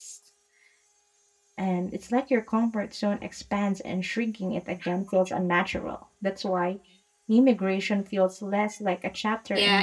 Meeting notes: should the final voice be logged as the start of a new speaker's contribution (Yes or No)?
Yes